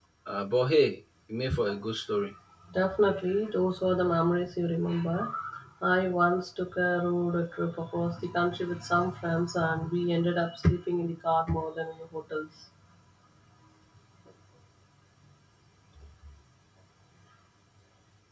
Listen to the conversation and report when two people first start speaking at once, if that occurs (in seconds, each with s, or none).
none